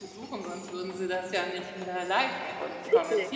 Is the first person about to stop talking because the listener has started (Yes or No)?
Yes